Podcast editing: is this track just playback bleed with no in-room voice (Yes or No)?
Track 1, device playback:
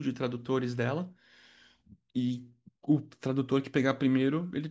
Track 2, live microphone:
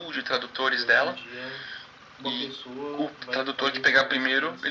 No